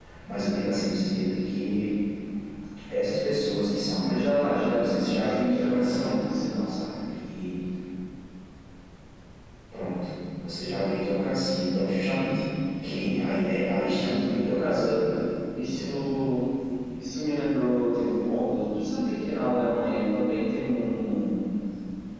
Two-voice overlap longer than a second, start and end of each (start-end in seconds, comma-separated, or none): 4.1-6.1